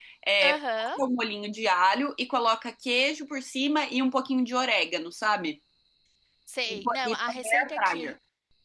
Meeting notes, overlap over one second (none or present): present